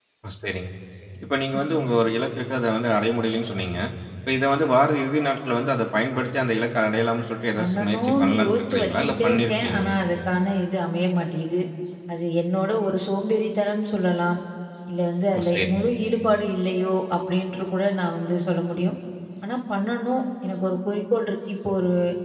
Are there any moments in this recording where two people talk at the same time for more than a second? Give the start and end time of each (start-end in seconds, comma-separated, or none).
7.6-9.9